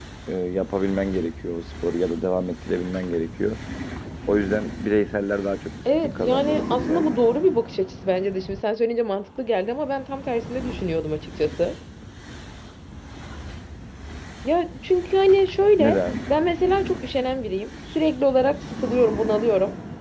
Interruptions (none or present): present